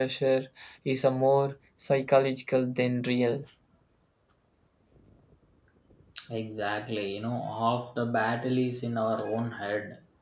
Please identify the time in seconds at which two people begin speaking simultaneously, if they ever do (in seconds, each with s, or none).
none